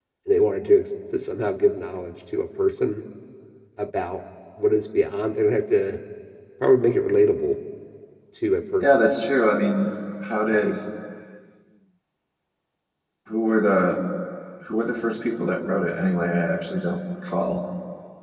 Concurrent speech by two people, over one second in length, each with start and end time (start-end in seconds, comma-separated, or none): none